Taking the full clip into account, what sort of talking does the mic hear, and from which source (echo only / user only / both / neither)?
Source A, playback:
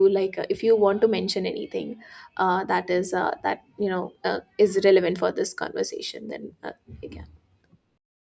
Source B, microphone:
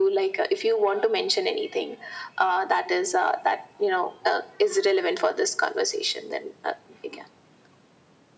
echo only